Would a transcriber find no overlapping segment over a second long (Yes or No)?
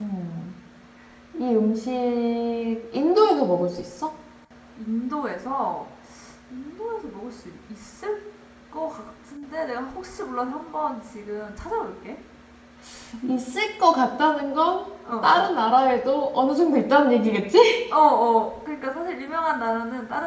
Yes